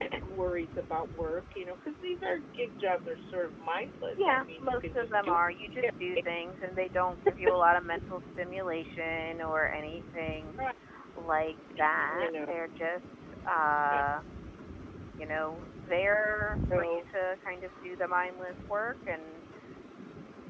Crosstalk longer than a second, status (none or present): present